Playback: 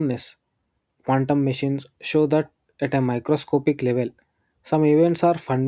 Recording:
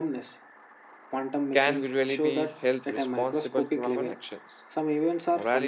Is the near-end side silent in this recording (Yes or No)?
No